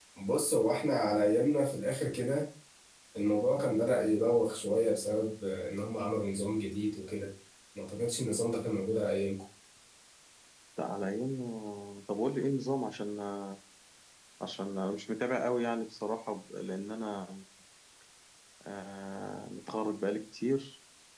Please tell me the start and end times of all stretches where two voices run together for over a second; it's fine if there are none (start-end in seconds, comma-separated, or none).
none